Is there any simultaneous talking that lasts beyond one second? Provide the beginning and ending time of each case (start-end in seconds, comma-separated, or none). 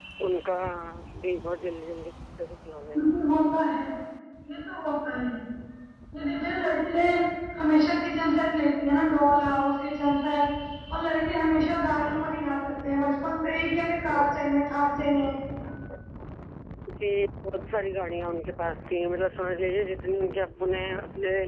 none